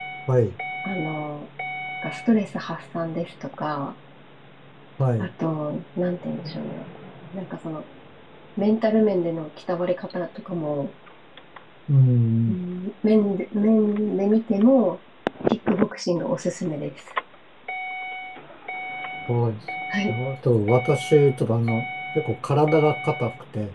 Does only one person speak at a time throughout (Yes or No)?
Yes